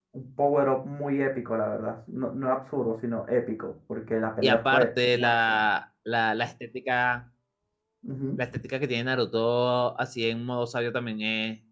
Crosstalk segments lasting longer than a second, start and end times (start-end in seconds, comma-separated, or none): 4.4-5.6